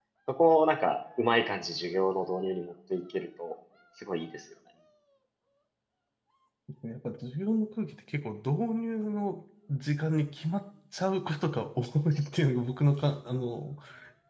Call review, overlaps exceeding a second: none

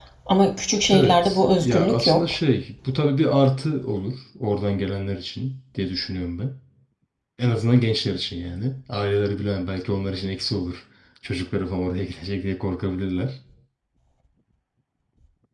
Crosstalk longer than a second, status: present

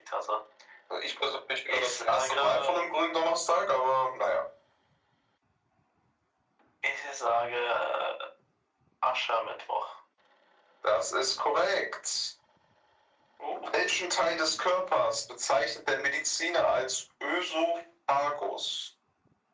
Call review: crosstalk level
present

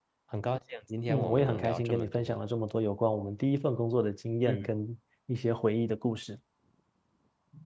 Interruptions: present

